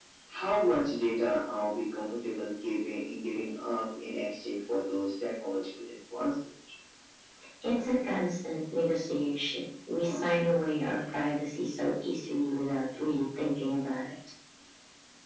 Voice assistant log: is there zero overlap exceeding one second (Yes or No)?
Yes